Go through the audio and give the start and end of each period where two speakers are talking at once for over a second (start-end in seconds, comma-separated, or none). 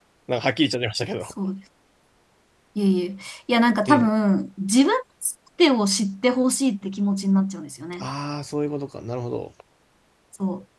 none